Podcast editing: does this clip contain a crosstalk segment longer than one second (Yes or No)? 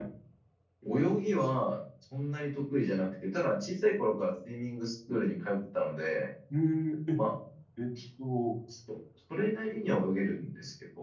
No